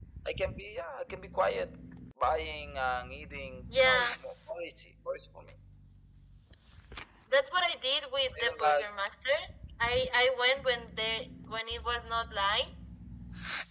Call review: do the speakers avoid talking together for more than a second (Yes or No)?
Yes